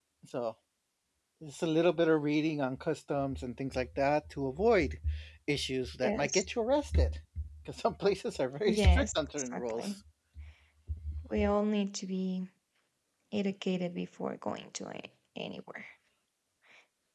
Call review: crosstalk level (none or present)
present